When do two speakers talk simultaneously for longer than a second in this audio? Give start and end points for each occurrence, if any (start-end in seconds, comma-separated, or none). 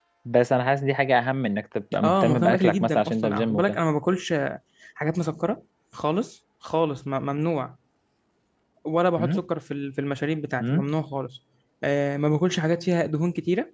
2.0-3.8